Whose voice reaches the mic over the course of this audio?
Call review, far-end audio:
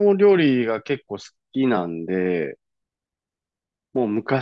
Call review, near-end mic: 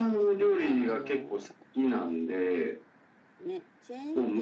both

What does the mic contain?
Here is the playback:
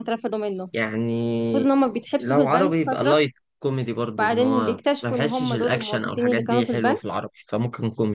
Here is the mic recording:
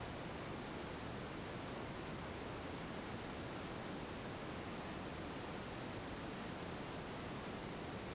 neither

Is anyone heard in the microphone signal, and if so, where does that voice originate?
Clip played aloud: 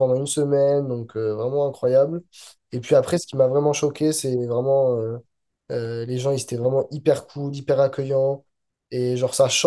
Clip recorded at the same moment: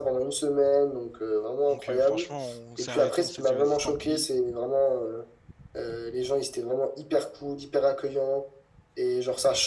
both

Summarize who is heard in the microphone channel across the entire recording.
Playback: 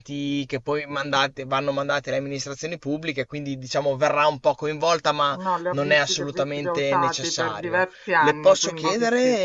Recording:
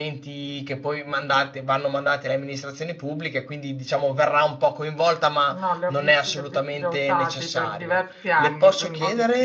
echo only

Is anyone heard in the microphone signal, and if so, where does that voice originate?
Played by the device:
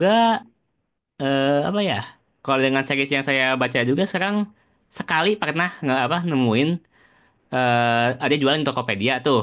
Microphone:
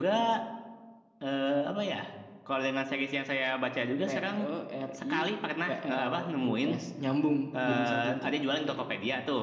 both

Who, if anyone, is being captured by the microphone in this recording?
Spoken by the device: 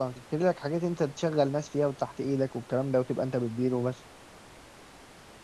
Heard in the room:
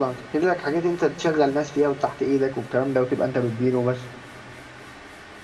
echo only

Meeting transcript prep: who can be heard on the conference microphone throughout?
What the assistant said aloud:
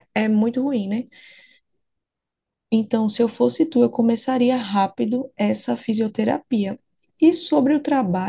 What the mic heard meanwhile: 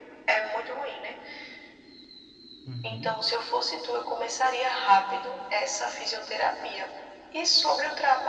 both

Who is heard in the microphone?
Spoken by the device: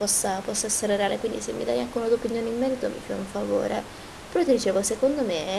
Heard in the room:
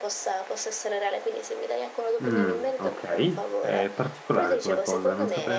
both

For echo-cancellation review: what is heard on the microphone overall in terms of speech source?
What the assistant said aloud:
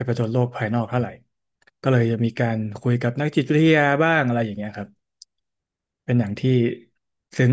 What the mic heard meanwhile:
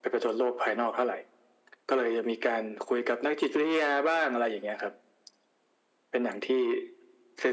echo only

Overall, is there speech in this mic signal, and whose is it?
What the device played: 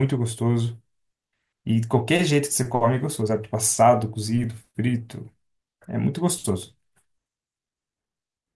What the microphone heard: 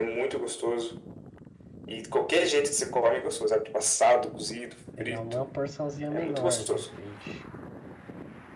both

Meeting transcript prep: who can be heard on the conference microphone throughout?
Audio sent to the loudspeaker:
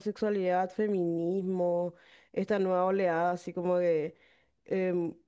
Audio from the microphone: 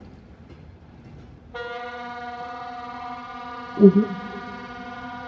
user only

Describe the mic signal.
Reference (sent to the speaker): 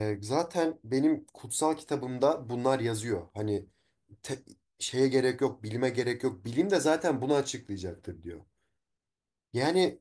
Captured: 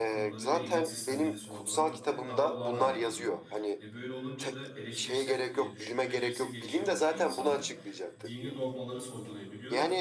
both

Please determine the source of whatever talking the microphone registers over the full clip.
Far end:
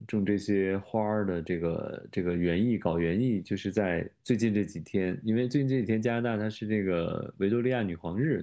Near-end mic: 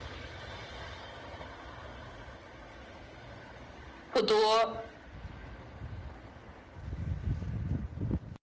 user only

